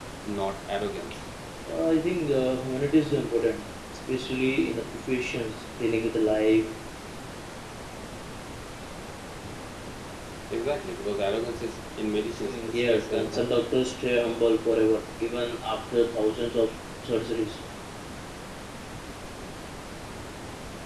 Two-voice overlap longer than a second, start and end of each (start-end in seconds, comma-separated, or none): 12.4-13.6